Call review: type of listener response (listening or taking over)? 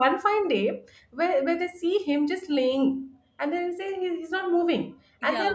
listening